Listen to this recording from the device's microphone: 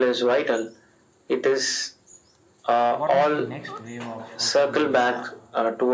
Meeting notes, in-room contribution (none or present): present